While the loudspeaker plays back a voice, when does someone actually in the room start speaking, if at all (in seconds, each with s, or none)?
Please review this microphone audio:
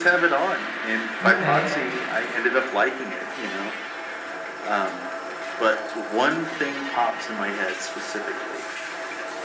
1.2 s